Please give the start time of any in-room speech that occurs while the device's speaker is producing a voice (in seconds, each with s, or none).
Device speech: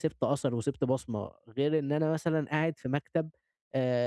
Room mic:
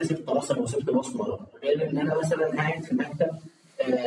none